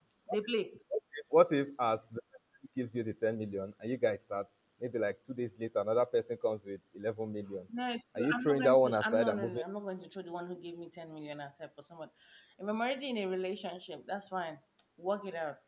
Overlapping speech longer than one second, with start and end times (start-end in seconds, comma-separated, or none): 8.2-9.6